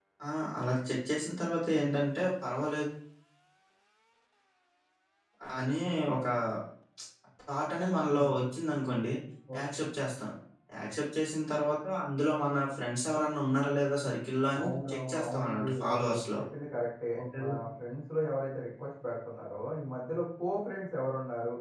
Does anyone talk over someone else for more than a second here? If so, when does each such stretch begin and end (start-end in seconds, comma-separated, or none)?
14.6-16.2